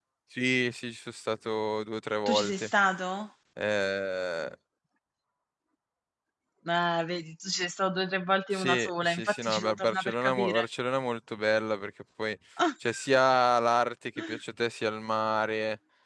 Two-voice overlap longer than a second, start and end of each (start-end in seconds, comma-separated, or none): 8.5-10.7